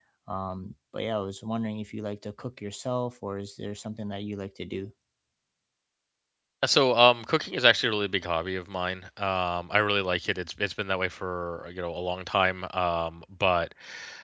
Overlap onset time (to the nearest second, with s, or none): none